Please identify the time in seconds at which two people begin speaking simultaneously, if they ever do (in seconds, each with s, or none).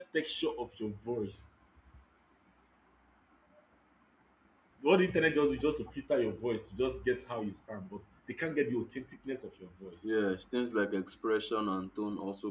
none